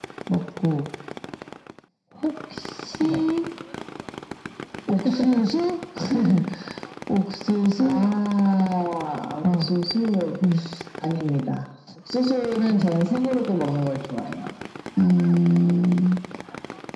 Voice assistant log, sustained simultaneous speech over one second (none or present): none